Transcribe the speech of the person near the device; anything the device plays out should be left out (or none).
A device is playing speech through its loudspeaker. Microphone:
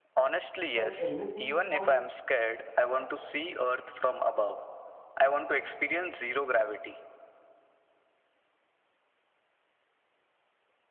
But everything was